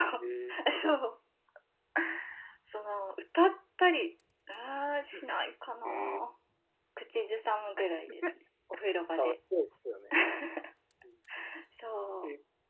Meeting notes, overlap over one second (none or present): none